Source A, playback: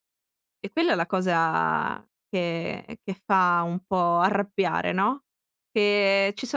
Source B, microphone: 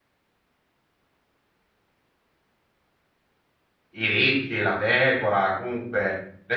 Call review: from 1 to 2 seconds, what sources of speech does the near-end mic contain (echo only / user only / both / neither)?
neither